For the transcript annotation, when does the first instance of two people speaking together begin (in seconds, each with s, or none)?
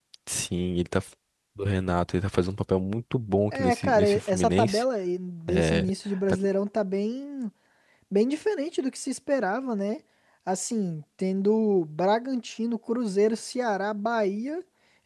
3.5 s